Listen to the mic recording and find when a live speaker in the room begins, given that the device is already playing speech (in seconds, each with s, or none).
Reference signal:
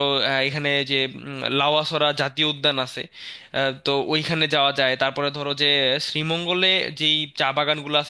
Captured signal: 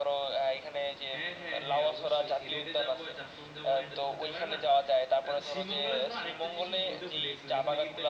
1.1 s